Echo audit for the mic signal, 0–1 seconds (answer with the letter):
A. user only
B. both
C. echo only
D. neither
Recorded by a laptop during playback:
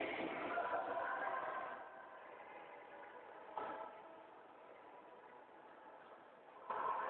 D